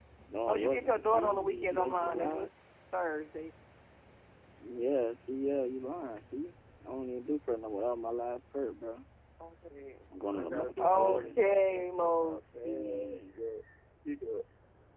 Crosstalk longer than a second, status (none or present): present